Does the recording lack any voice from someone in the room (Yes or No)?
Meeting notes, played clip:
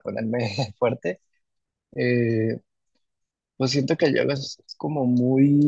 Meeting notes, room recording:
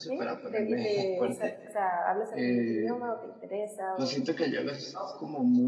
No